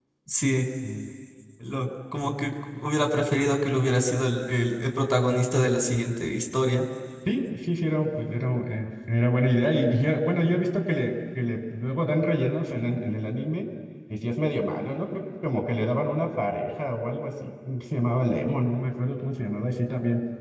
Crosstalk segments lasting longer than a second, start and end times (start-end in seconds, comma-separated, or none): none